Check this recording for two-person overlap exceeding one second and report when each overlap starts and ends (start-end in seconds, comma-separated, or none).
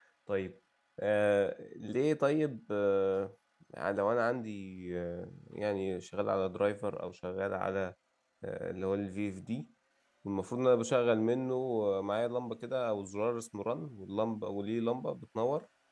none